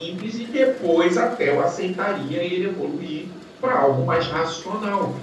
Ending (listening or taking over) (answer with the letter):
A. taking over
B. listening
B